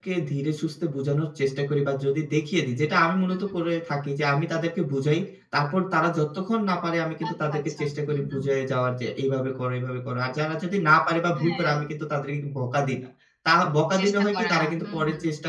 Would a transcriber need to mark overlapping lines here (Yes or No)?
Yes